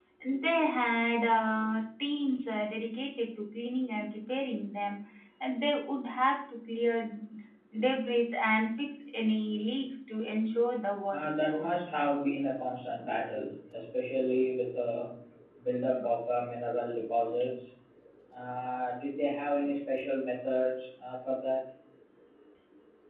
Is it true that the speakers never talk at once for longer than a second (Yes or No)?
Yes